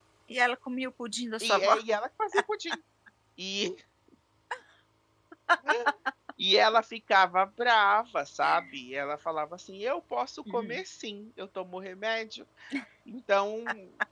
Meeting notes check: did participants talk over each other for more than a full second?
No

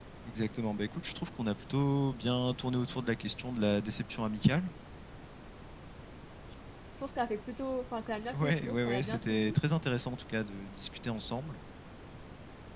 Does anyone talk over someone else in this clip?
Yes, from 8.3 s

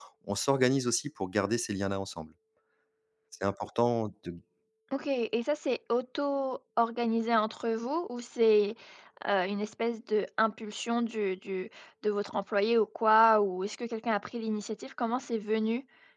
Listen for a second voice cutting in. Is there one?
No

